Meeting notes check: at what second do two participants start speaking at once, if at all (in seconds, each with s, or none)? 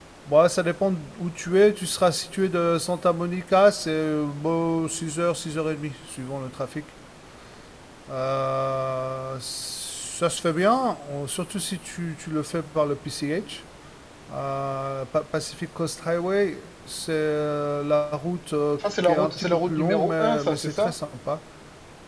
18.8 s